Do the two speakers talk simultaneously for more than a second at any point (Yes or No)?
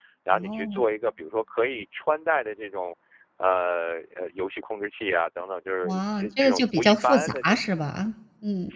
Yes